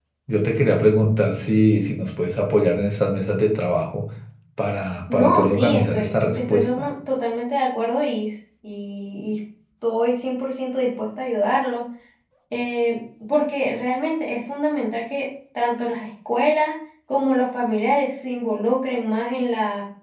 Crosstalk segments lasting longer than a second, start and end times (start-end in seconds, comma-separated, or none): 5.1-6.9